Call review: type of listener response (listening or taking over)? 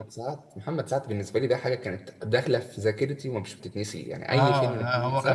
taking over